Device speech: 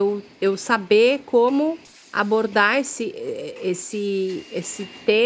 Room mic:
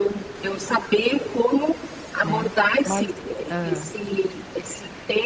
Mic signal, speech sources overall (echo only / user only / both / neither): both